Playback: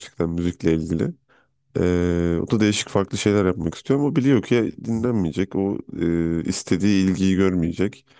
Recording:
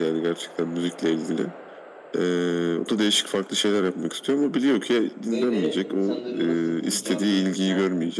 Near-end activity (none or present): present